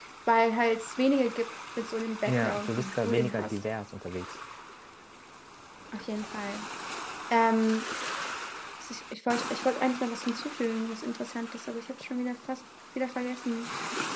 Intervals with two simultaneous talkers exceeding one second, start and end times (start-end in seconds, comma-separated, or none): 2.3-3.5